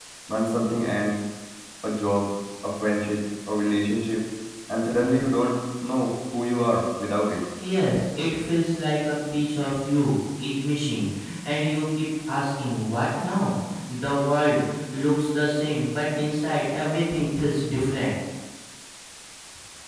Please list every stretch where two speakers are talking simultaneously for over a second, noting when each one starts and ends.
none

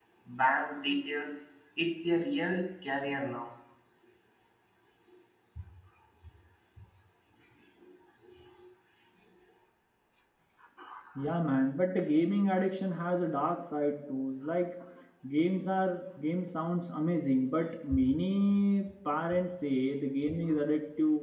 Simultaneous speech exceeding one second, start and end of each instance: none

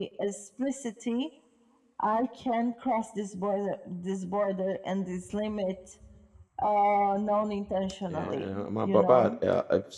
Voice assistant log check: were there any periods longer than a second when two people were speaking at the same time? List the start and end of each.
8.1-9.3

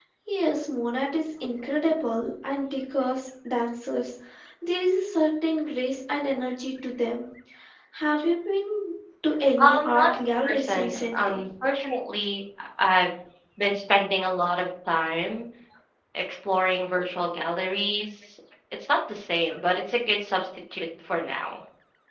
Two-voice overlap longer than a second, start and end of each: 9.6-11.4

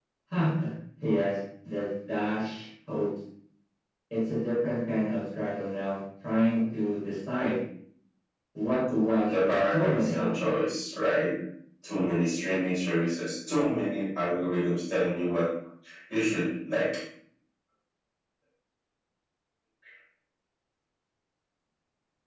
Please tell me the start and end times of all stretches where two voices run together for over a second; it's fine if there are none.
9.3-10.6

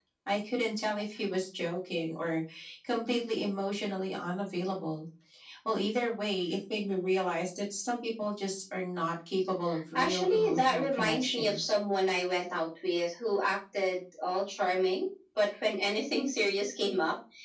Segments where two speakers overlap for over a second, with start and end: 9.9-11.6

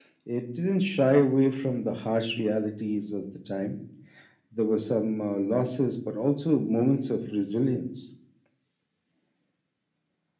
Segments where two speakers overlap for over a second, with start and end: none

